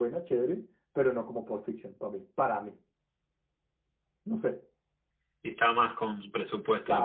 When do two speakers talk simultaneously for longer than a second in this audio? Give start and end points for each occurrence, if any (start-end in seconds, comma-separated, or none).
none